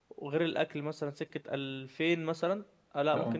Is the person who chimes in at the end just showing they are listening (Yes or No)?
Yes